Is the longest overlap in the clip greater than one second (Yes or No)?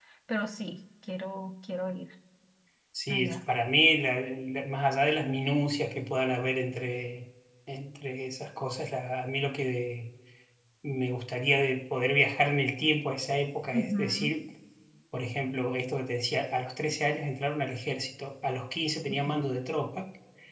No